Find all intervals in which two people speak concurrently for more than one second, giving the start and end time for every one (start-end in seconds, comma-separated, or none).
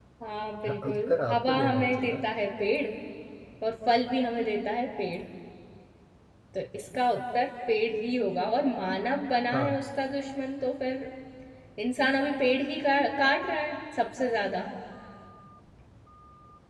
0.6-2.2